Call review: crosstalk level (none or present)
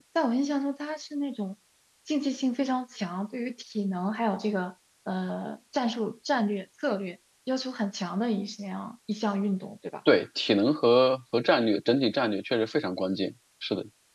none